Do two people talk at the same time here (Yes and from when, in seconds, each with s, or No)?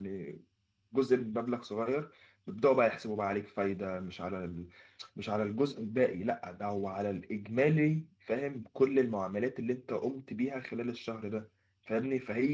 No